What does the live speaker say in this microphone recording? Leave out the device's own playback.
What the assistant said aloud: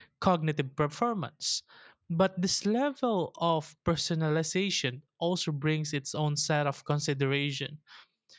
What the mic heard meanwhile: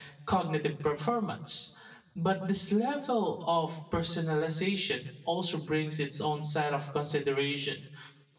none

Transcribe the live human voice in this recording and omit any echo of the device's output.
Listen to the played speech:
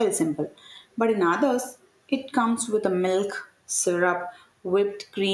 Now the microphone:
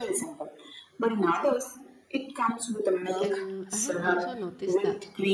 And I have also noticed that

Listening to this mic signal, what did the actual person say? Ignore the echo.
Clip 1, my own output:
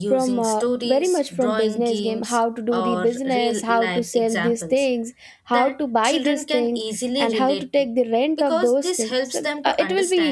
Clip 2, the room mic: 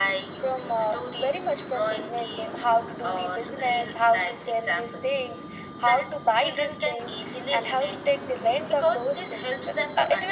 none

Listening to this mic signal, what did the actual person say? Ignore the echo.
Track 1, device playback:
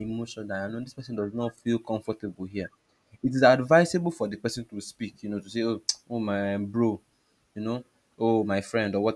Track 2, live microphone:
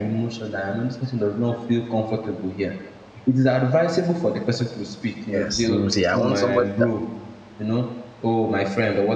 Yes, you will say, I want somebody that.

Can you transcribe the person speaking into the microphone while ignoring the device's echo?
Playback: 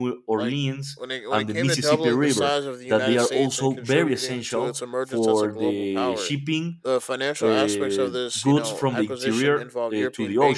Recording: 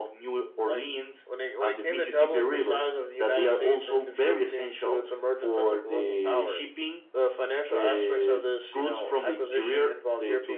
none

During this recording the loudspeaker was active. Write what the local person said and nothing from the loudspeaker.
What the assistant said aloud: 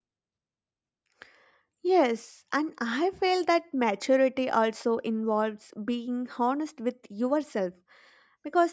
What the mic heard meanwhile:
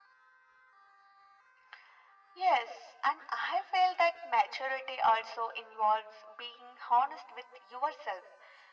none

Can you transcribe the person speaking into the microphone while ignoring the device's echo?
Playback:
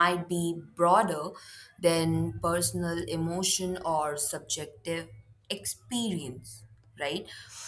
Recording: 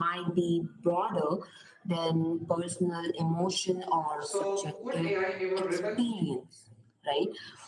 So, could AI ever rebel?

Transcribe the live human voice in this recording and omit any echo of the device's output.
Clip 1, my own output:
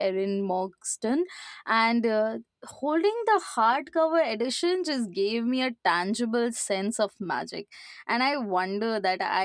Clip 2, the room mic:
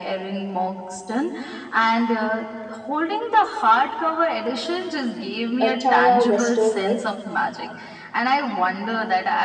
uh, Tara Westover

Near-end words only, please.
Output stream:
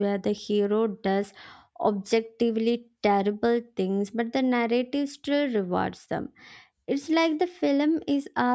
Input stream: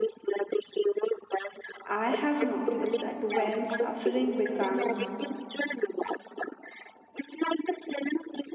I have noticed that when suffering becomes

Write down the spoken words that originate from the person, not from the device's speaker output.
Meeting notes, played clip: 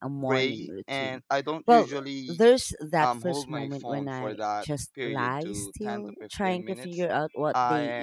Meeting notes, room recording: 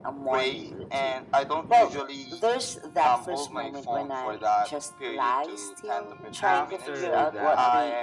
after that,

